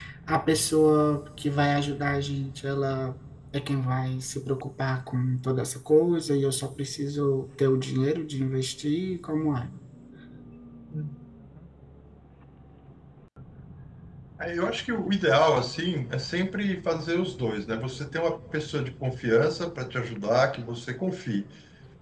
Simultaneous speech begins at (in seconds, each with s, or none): none